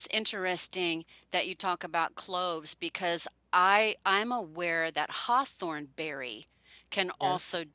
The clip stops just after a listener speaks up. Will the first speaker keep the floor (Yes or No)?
Yes